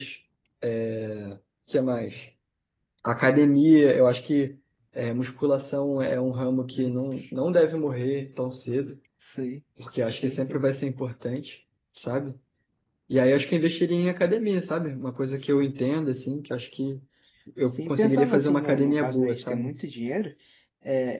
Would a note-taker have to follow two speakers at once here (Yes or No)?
Yes